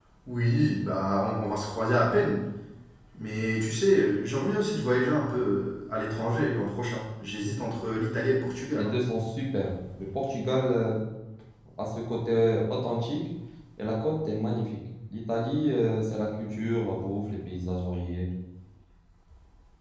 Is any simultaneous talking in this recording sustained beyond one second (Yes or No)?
No